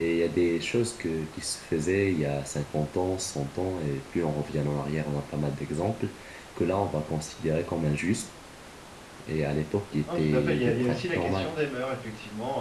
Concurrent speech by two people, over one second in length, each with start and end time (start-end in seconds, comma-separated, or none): 10.1-11.5